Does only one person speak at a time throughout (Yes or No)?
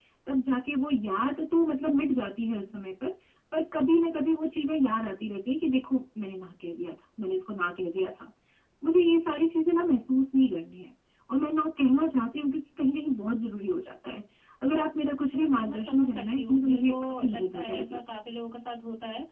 No